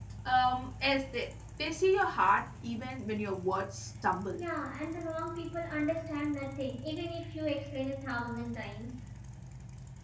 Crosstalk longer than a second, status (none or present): none